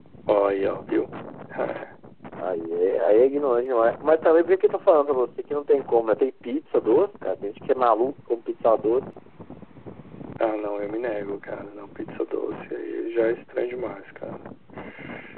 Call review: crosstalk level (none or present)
none